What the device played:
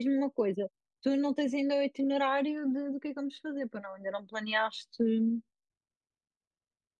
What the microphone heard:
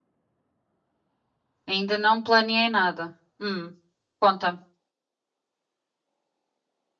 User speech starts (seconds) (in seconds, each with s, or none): 1.7 s